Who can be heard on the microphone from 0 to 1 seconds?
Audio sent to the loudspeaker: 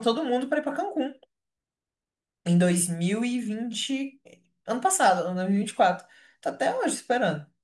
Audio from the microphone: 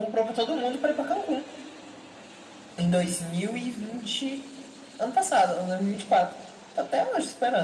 echo only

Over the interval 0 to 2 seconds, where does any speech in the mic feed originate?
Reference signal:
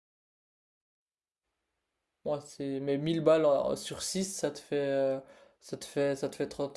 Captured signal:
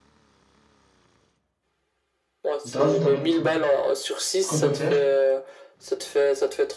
neither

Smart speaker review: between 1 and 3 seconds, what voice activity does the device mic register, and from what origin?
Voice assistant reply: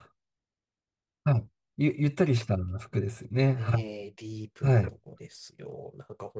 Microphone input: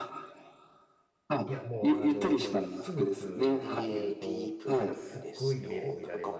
both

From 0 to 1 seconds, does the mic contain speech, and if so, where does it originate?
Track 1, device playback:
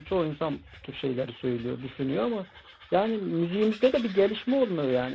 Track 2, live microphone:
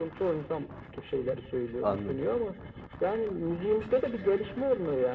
echo only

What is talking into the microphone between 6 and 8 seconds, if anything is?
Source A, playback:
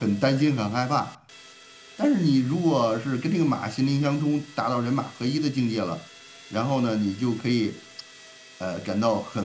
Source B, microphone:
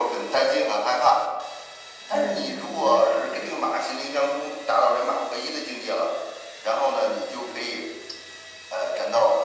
echo only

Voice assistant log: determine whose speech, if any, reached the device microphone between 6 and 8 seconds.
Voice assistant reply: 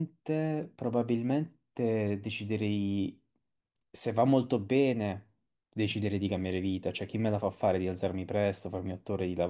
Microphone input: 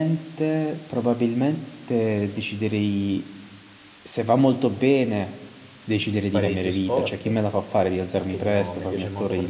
both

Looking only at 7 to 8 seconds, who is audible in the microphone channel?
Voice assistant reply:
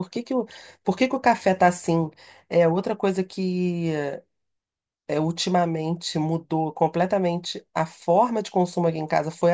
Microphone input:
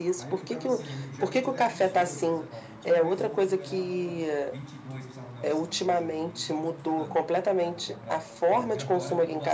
both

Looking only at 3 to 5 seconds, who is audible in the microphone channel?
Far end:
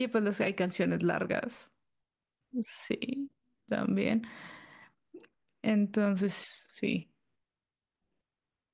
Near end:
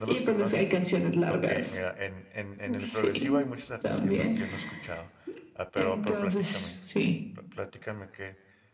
both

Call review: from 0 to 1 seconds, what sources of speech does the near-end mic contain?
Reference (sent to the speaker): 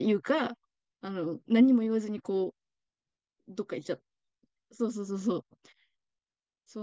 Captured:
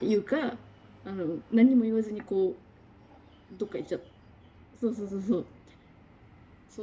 echo only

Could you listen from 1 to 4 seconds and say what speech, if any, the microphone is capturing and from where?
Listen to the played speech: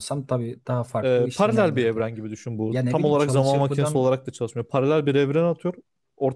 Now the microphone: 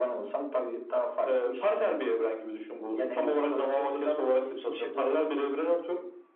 echo only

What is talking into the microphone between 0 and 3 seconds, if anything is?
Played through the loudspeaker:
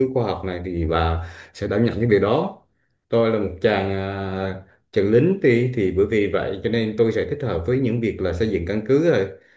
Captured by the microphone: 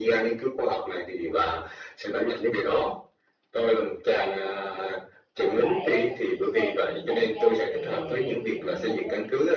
echo only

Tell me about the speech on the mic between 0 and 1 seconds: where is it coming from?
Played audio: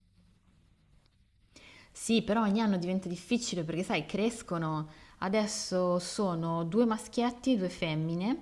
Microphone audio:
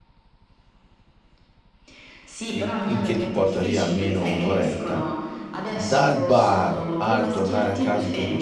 neither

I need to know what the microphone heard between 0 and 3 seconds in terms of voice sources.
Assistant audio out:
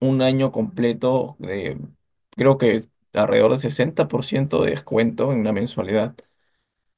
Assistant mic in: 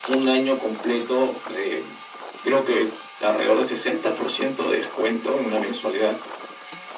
echo only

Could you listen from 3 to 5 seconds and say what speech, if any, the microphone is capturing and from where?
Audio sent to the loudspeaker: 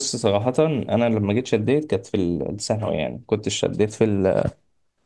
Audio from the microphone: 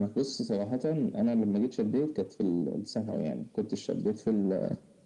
echo only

